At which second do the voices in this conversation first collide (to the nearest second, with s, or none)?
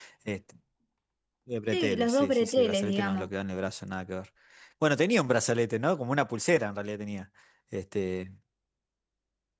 2 s